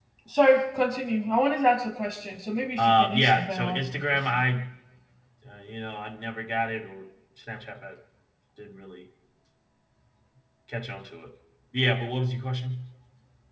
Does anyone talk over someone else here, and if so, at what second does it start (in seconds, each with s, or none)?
2.8 s